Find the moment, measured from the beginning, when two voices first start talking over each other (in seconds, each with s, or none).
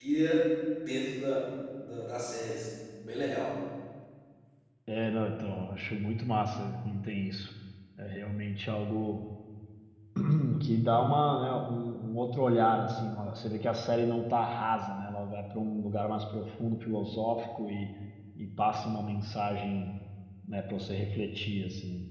none